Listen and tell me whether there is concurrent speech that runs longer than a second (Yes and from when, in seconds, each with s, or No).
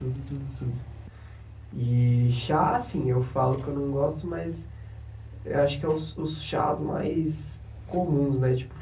No